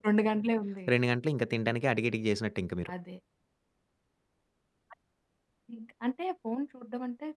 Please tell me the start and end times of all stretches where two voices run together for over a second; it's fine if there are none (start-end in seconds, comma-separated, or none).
none